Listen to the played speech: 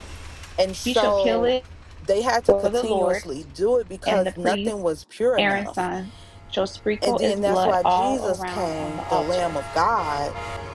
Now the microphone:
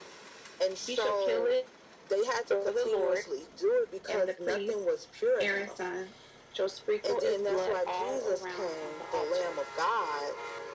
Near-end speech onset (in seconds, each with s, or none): none